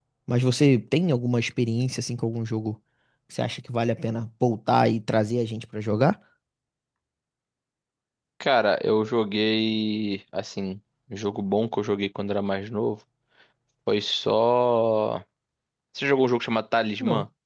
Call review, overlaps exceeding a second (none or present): none